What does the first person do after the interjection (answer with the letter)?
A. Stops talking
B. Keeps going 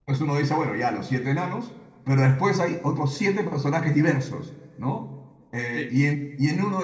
B